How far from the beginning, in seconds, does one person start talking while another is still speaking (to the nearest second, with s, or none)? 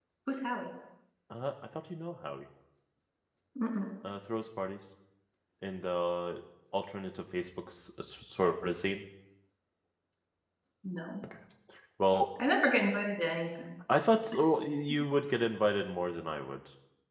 none